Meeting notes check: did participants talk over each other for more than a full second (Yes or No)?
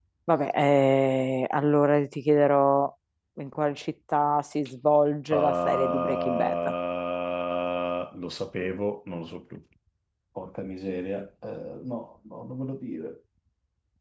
Yes